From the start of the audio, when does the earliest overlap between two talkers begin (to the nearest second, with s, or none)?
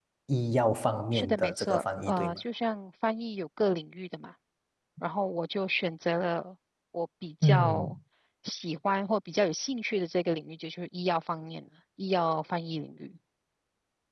1 s